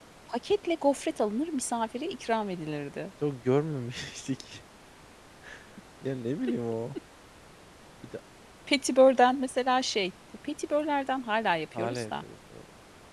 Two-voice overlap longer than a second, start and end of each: none

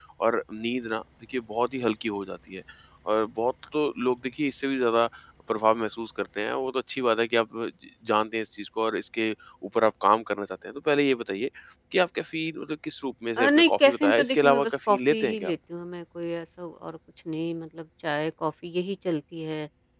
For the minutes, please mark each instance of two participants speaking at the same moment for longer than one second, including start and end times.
13.4-15.5

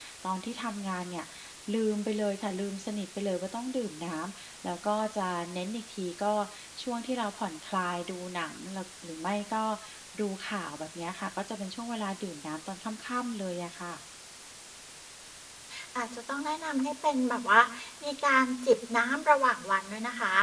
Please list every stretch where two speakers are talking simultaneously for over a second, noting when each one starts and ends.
none

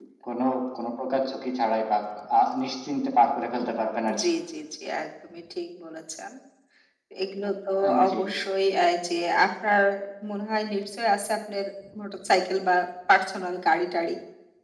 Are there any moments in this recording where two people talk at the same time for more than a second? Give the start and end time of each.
none

